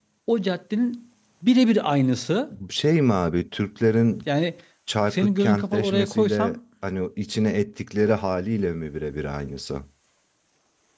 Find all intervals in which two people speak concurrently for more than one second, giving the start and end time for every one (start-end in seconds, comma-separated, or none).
5.1-6.6